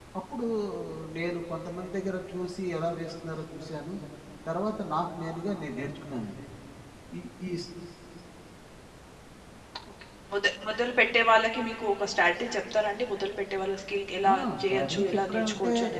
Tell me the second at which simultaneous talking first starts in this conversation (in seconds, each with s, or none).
14.2 s